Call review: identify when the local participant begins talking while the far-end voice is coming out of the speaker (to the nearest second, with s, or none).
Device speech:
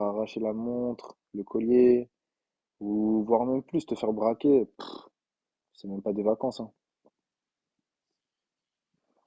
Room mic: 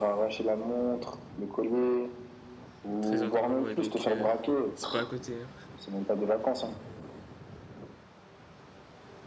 3 s